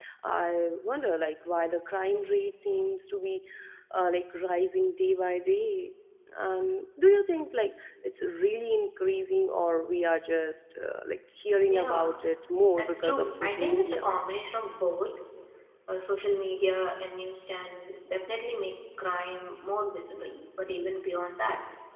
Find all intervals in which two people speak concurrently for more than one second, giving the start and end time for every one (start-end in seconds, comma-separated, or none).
12.8-14.0